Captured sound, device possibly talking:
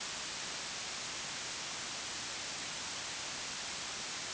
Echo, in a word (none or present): none